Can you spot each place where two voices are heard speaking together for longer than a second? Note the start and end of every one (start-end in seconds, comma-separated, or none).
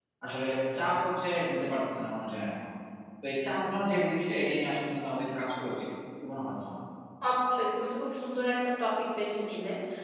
none